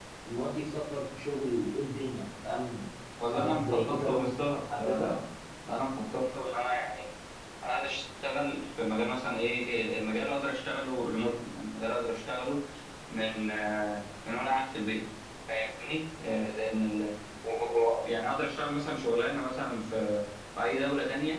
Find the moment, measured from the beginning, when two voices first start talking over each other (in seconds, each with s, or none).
3.3 s